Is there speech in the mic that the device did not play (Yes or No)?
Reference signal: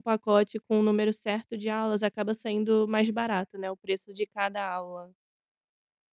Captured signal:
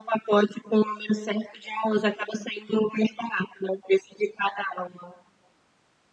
No